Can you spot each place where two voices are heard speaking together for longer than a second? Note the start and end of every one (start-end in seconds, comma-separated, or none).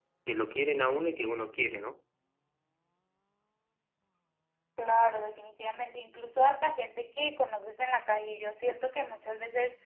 none